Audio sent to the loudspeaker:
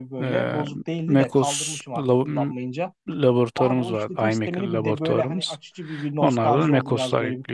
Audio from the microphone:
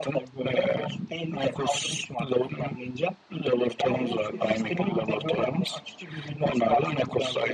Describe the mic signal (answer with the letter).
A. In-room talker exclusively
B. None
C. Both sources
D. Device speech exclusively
C